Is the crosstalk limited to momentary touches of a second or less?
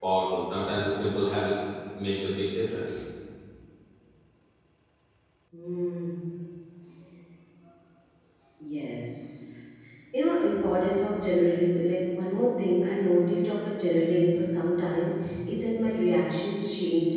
Yes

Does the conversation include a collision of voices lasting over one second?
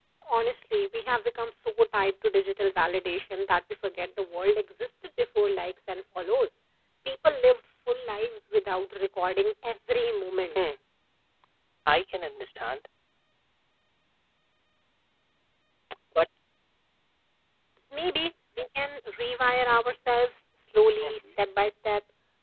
No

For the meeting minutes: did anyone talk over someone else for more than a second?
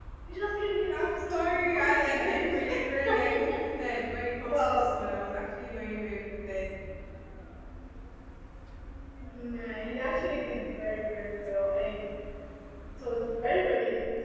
Yes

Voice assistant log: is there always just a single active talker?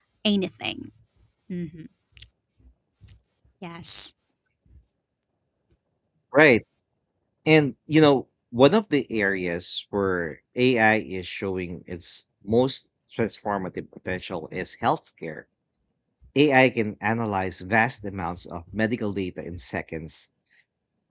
Yes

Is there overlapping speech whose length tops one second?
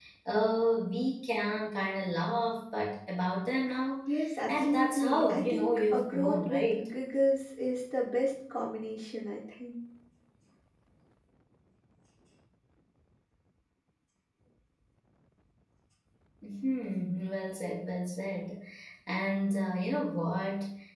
Yes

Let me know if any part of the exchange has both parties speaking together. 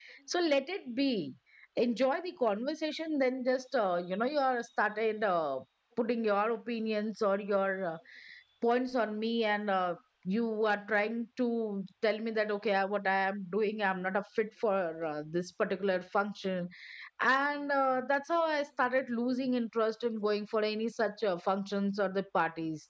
No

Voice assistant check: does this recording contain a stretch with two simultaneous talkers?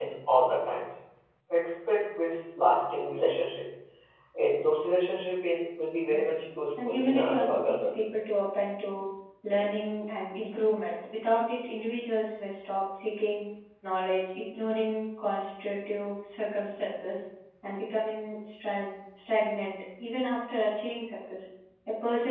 Yes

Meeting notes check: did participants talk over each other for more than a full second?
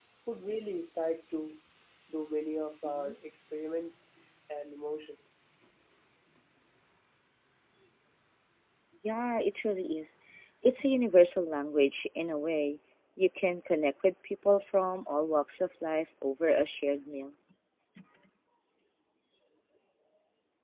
No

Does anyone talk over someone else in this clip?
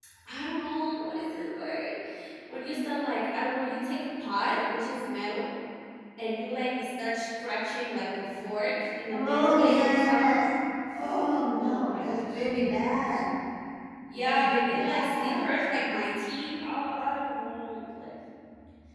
Yes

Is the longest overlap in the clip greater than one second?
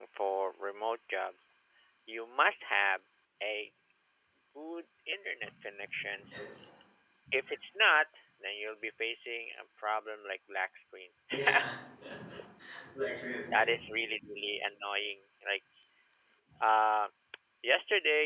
No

